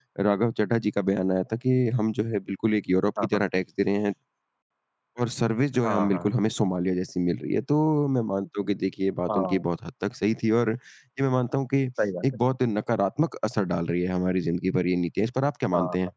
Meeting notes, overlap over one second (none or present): none